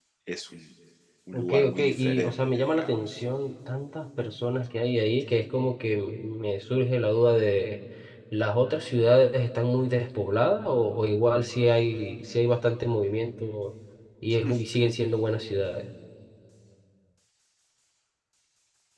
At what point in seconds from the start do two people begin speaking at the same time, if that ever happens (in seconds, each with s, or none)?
1.3 s